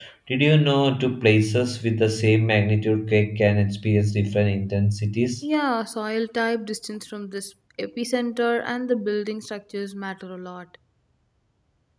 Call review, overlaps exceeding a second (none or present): none